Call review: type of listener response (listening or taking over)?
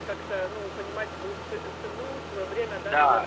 taking over